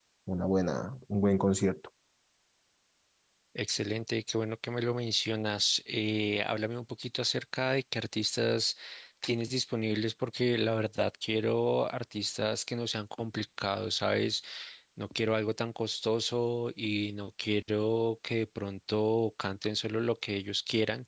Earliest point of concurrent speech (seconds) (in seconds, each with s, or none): none